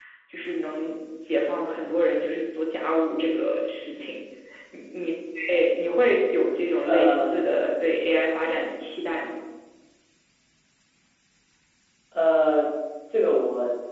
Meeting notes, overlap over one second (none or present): none